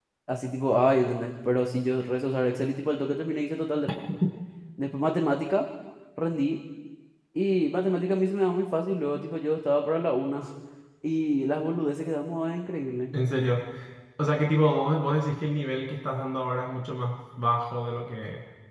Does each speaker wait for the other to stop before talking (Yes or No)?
Yes